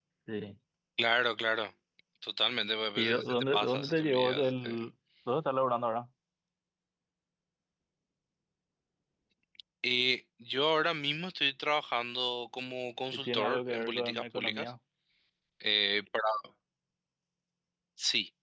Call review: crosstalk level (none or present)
present